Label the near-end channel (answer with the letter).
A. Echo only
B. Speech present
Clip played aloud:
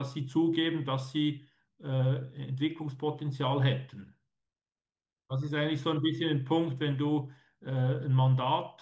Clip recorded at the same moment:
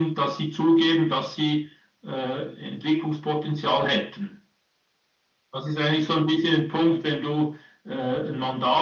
A